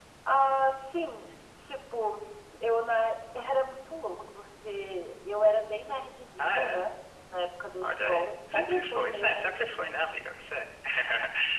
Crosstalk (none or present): present